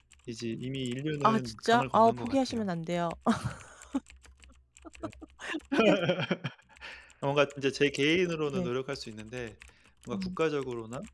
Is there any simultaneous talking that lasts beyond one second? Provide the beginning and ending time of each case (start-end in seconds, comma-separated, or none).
1.2-2.7